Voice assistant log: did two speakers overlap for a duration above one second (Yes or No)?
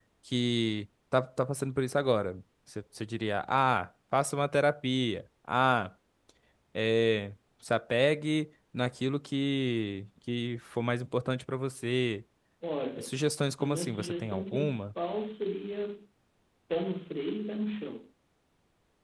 Yes